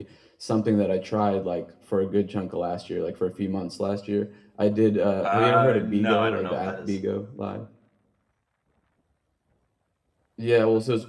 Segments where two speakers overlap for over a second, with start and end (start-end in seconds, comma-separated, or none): 5.2-7.0